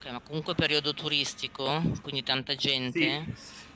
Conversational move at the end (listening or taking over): taking over